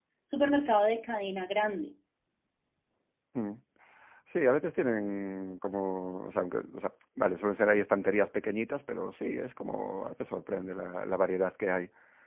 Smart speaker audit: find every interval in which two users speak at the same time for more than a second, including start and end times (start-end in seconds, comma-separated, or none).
none